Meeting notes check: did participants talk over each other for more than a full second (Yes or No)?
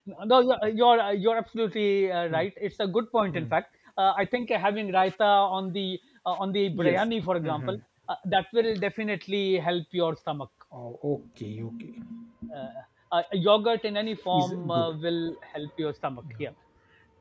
No